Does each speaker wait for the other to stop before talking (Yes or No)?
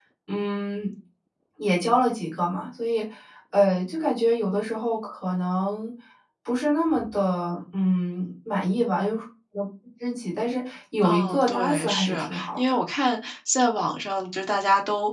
No